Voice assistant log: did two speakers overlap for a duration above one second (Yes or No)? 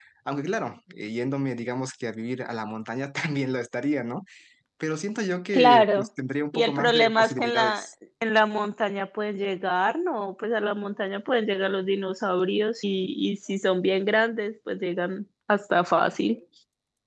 Yes